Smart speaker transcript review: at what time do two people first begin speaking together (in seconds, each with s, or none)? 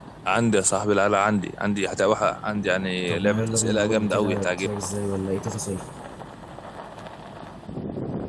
3.1 s